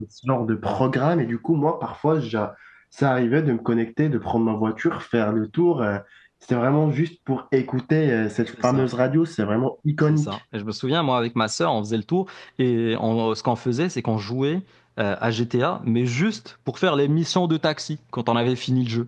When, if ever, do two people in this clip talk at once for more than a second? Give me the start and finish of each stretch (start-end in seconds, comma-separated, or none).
none